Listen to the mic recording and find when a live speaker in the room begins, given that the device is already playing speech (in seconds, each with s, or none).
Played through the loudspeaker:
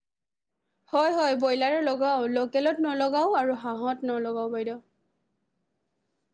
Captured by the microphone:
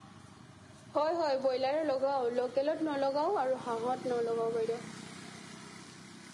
none